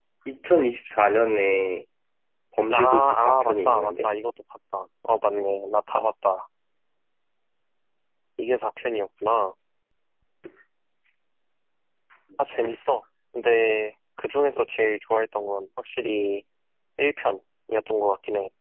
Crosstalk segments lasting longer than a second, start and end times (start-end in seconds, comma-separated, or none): 2.7-4.1